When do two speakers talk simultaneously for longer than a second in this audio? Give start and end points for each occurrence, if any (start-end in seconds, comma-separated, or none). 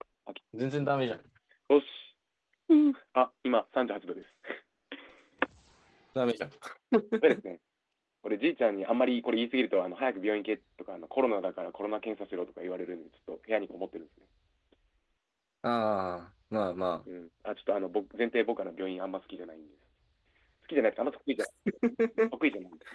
none